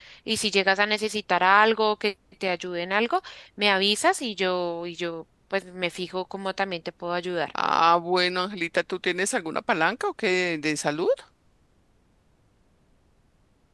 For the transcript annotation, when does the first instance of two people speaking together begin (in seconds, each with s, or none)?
none